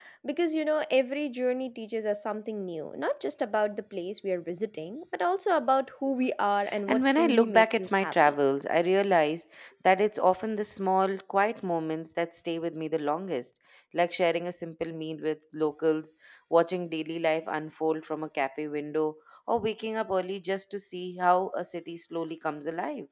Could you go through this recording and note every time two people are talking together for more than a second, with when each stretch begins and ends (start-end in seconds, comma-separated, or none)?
6.9-8.3